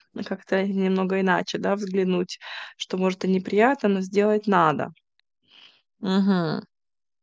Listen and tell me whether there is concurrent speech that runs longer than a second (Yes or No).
No